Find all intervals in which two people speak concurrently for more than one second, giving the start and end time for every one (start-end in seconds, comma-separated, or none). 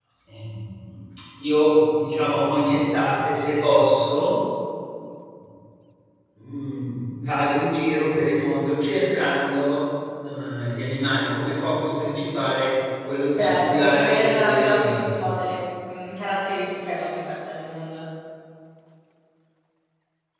13.4-15.3